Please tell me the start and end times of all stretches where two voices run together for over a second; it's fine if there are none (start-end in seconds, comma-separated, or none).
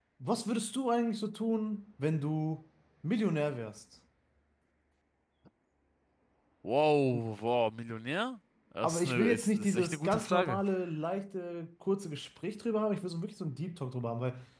8.8-10.6